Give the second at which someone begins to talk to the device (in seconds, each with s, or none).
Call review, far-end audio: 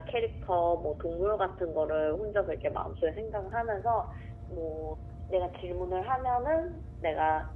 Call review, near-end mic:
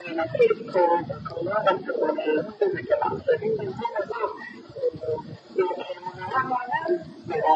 none